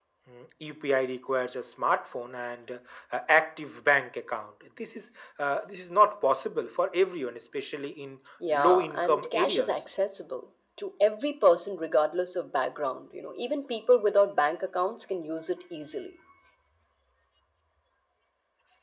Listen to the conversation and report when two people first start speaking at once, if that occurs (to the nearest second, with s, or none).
8 s